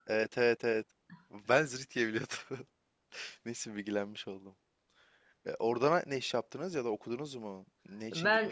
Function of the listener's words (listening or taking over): taking over